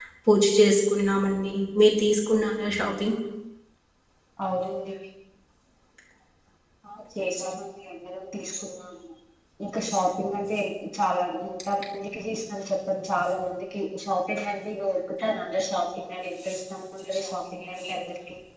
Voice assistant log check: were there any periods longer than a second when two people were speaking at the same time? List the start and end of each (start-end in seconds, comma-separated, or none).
none